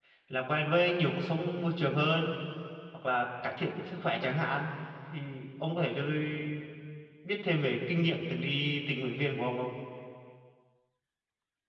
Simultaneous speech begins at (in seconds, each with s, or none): none